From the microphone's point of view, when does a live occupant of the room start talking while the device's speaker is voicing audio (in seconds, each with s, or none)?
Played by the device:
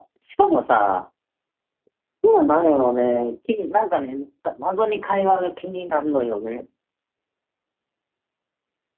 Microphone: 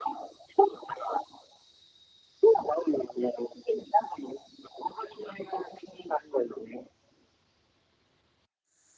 none